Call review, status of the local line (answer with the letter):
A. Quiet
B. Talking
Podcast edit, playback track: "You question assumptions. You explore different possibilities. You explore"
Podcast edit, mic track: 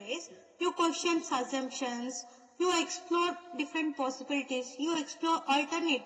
A